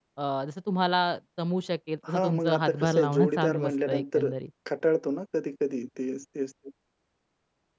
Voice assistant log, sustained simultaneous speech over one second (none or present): present